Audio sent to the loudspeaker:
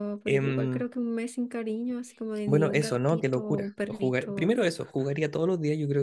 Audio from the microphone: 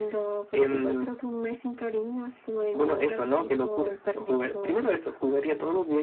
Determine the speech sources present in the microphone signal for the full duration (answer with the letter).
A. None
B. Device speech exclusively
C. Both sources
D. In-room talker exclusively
B